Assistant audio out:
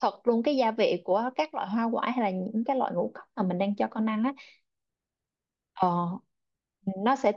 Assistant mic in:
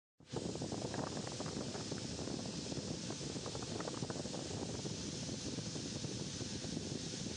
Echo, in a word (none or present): none